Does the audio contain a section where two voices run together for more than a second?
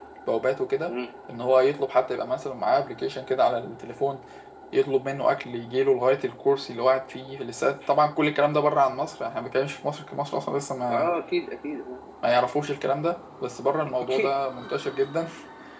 No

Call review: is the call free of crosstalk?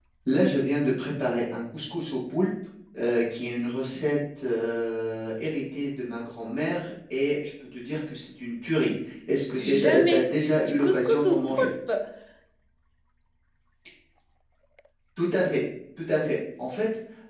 No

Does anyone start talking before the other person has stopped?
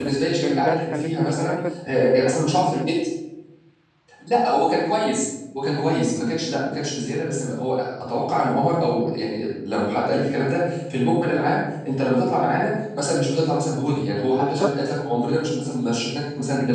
Yes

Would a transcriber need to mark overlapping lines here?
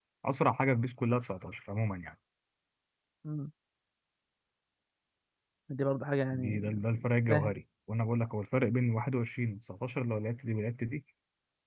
Yes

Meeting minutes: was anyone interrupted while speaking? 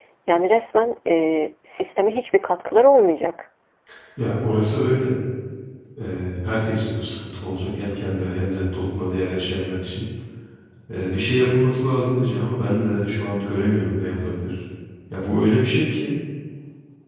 No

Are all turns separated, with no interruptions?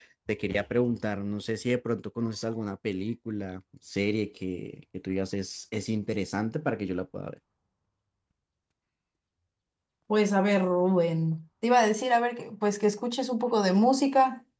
Yes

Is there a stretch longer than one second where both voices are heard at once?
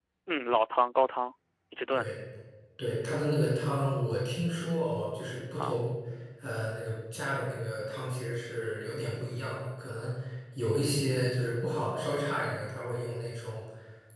No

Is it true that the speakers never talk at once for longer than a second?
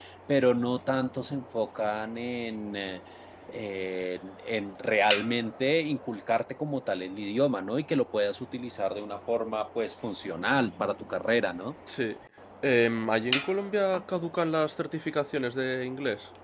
Yes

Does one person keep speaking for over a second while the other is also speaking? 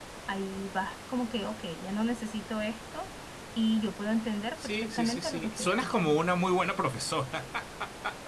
Yes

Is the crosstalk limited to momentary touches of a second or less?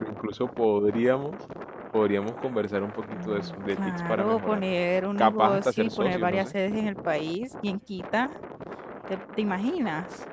No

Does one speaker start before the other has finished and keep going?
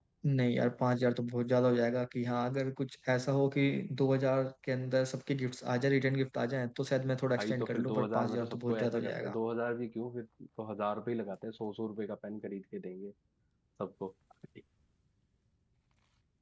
Yes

